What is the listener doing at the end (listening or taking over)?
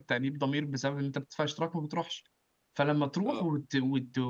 listening